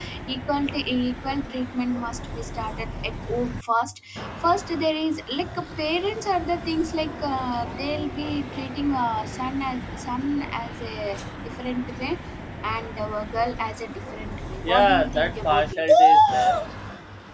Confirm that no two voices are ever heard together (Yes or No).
No